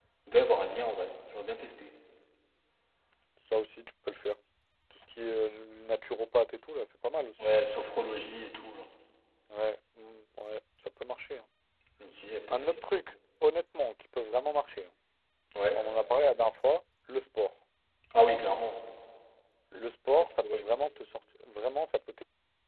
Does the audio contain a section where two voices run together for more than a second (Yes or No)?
No